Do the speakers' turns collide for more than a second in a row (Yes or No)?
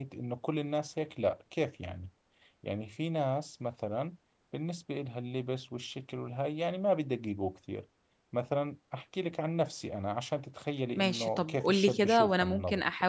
Yes